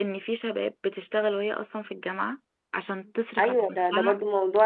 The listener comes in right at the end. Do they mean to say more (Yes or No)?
Yes